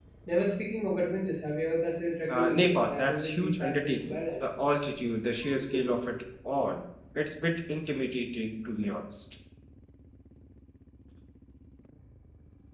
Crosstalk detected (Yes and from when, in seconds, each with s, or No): Yes, from 2.3 s